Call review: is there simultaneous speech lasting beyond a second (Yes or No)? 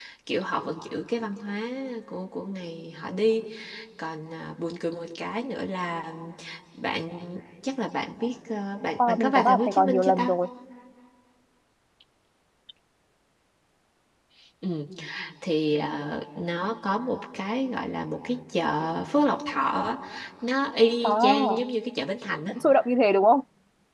Yes